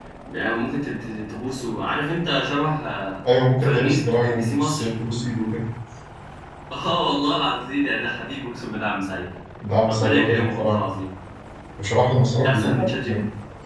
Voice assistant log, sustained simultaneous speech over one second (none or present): present